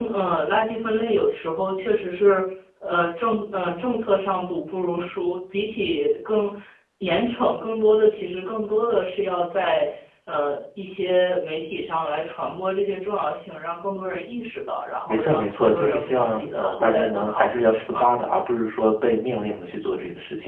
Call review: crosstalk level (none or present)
present